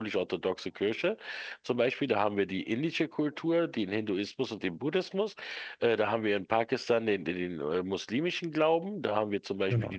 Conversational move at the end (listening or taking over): listening